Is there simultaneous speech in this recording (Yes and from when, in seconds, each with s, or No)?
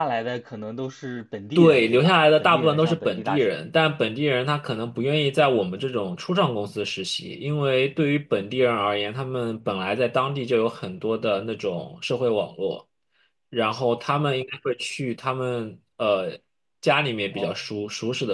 Yes, from 1.6 s